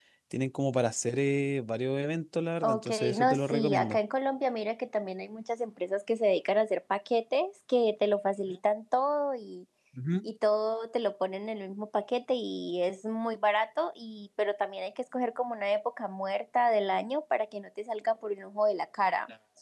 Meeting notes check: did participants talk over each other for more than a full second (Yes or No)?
Yes